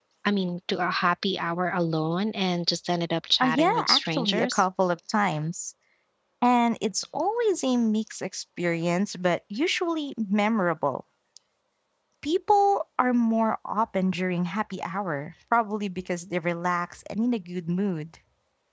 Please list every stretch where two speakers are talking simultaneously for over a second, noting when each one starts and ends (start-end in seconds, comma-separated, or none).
3.4-4.7